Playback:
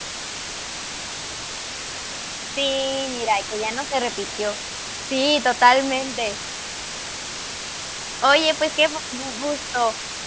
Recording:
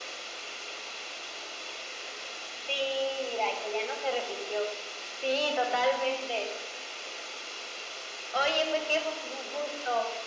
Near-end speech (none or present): none